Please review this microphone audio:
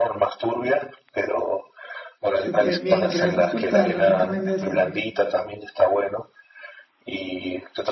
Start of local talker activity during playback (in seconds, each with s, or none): 2.3 s